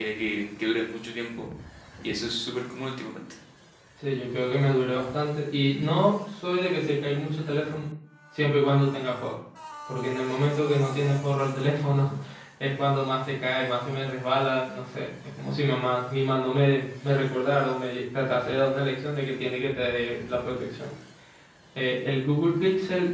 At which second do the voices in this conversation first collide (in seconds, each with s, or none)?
none